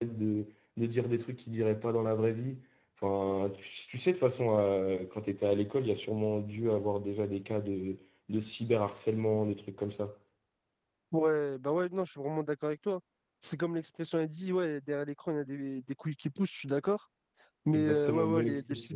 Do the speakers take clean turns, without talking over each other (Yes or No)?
No